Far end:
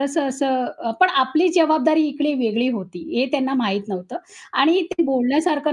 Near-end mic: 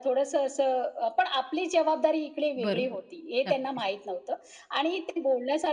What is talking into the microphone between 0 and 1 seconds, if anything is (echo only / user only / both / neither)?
echo only